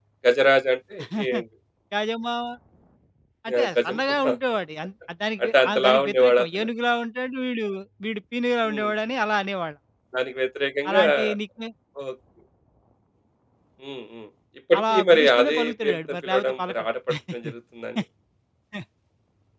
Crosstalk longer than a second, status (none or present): present